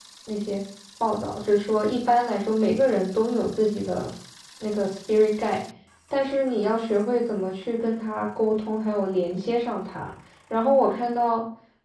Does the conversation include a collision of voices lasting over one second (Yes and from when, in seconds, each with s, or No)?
No